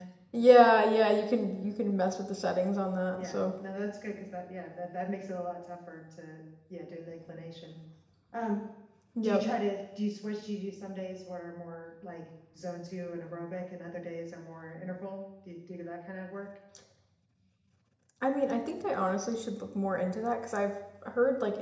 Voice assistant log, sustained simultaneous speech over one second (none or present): none